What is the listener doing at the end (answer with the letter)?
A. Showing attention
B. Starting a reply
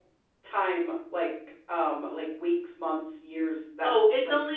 B